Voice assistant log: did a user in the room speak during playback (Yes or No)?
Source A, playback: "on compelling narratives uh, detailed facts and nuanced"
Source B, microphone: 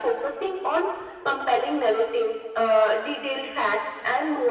No